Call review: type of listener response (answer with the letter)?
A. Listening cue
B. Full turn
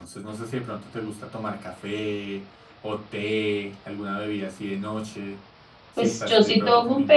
B